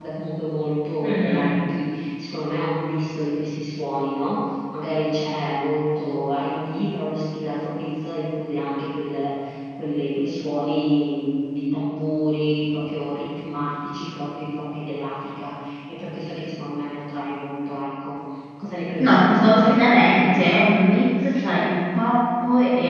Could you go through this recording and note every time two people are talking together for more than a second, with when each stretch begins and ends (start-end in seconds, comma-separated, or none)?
19.0-20.5